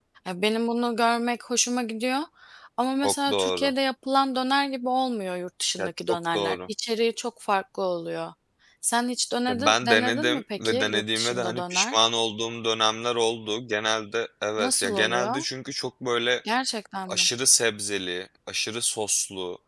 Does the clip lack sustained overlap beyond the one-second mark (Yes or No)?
No